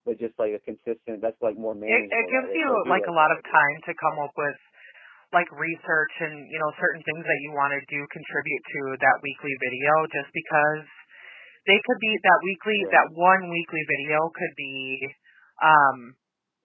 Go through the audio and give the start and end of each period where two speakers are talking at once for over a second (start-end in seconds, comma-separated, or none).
1.9-3.6